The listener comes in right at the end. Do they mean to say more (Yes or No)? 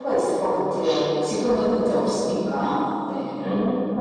Yes